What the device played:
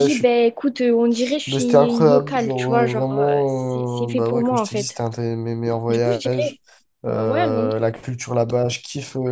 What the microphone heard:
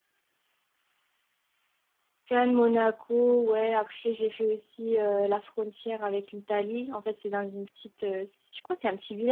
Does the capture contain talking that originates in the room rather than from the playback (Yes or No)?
Yes